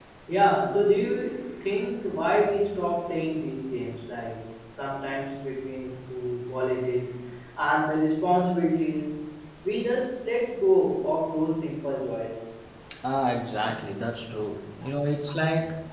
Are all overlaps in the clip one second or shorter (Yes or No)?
Yes